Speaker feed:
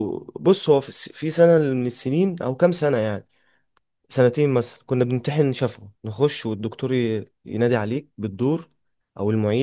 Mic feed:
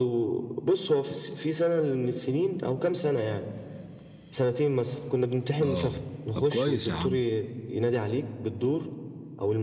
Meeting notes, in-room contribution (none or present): present